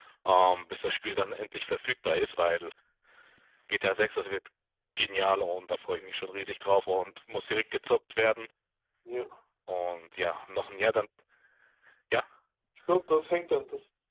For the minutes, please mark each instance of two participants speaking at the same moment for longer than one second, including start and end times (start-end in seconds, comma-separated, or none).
none